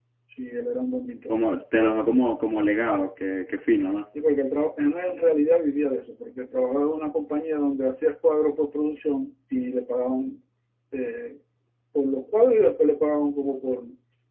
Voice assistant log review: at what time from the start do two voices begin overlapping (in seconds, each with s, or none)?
none